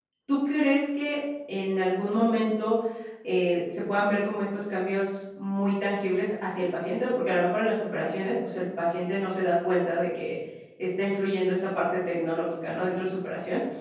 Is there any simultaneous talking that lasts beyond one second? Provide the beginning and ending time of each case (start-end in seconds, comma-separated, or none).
none